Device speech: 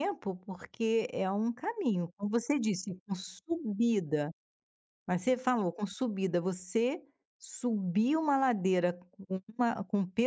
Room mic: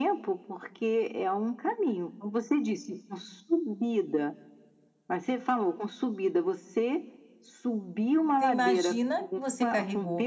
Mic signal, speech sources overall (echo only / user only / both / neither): both